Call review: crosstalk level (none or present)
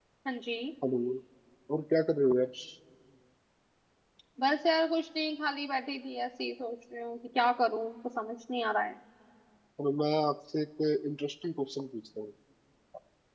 none